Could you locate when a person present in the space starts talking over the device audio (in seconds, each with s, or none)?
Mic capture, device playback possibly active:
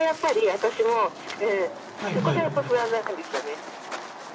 2.0 s